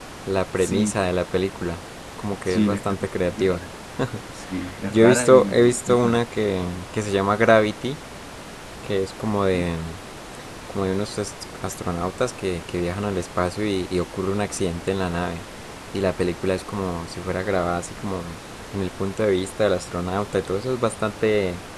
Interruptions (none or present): present